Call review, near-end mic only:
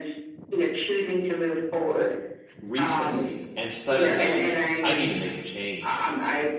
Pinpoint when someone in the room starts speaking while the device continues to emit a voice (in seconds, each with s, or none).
2.6 s